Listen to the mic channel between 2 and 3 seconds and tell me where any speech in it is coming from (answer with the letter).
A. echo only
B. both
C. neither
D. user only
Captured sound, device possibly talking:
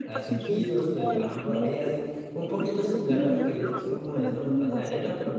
B